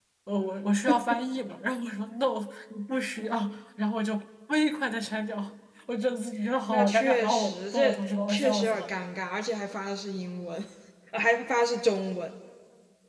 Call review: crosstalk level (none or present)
present